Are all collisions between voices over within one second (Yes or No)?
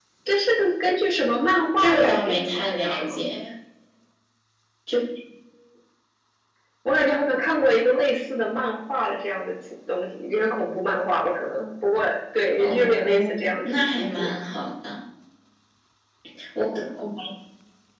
No